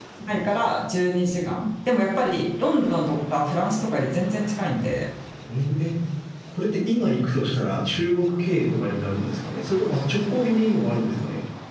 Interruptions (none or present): none